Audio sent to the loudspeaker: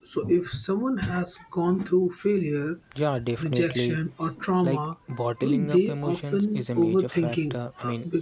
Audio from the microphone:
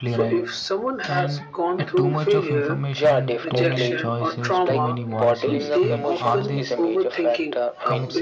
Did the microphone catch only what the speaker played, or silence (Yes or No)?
No